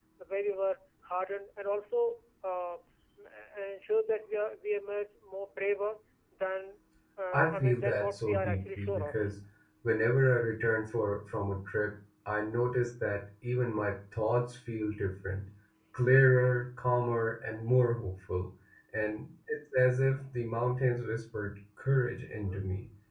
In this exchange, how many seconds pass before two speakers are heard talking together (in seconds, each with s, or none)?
7.3 s